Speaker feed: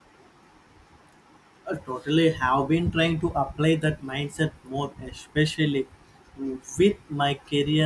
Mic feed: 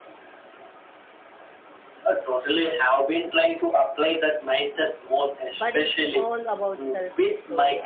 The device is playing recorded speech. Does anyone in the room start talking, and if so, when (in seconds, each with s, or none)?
5.5 s